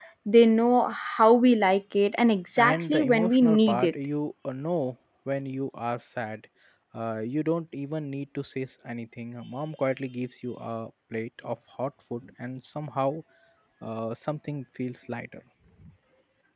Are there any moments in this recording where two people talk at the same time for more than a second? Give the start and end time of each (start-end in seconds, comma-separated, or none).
2.6-3.9